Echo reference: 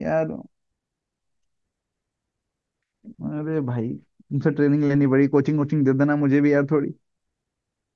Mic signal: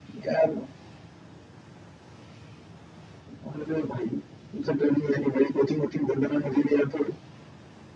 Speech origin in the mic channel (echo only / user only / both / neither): echo only